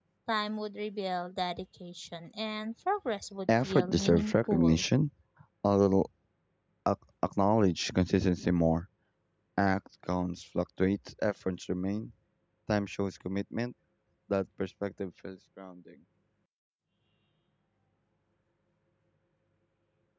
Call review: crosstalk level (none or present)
present